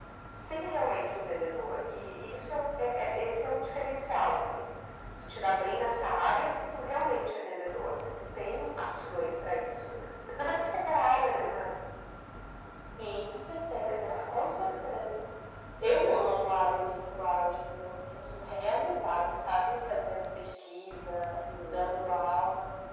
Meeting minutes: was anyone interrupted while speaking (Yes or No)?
Yes